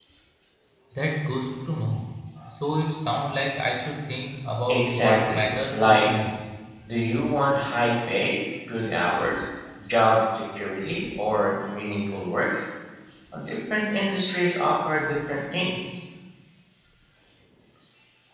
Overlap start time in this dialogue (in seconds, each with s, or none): 4.7 s